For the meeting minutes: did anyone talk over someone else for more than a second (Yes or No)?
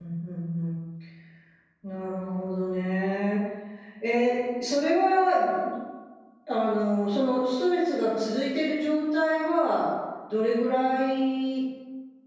No